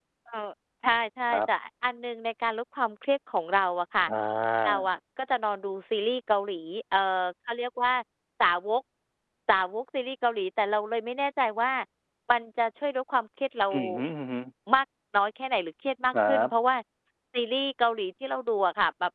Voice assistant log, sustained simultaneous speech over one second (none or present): none